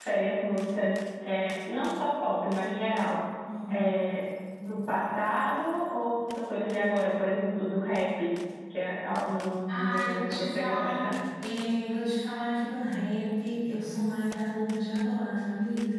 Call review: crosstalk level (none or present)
present